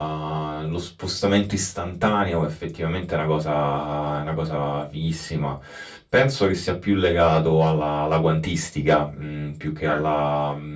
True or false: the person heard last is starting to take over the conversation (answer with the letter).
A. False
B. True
A